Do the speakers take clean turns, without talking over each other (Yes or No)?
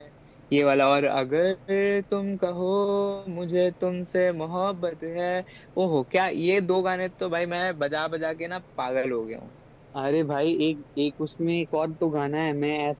Yes